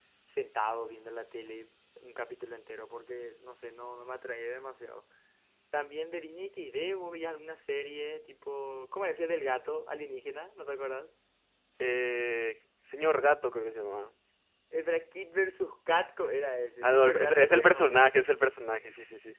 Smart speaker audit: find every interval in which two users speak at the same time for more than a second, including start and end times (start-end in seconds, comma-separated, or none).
16.8-18.1